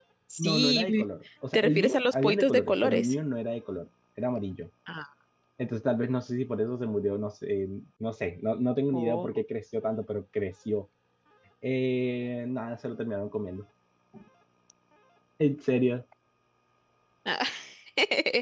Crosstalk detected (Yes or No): Yes